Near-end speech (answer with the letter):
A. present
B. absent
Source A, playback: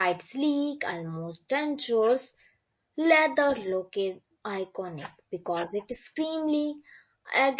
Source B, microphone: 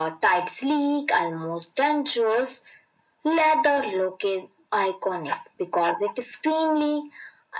B